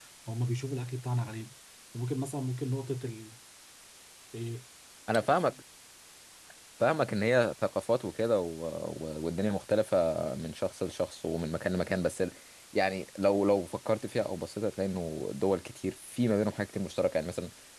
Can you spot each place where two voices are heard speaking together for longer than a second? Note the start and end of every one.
none

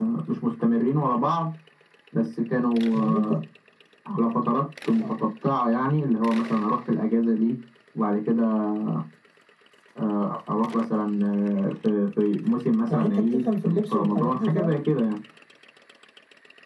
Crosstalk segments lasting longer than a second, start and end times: 12.9-14.9

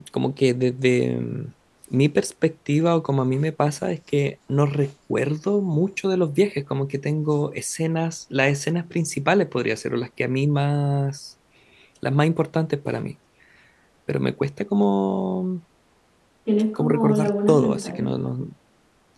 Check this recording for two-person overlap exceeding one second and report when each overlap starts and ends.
16.8-18.1

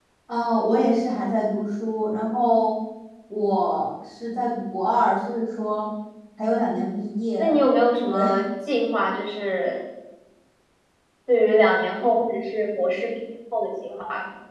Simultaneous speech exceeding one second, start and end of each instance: none

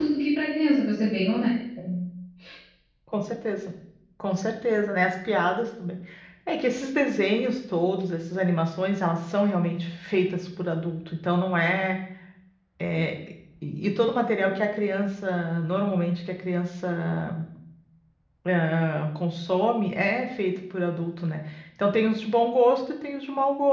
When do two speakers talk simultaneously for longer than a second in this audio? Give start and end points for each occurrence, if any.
none

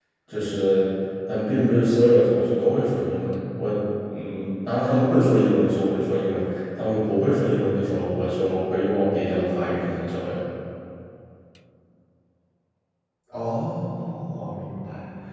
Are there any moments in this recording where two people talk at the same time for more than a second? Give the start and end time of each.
none

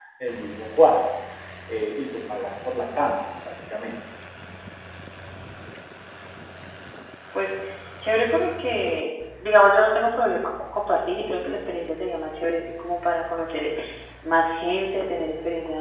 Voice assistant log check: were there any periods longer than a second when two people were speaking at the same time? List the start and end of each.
none

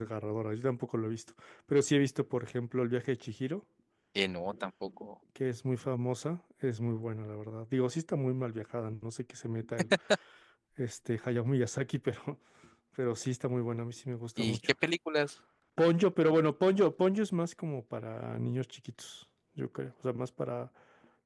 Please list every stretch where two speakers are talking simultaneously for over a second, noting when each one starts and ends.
none

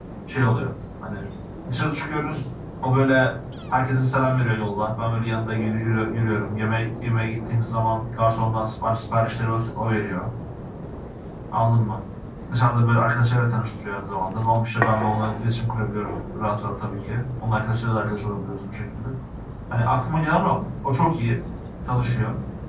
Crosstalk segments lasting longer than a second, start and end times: none

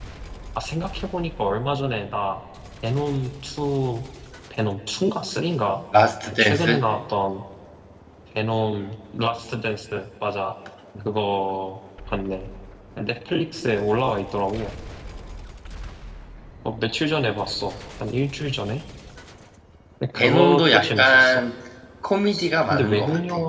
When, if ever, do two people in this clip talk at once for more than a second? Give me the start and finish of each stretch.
20.2-21.4

